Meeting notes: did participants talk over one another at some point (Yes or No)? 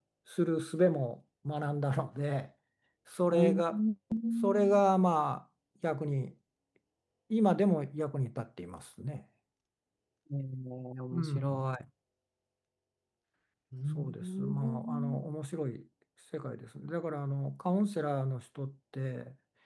Yes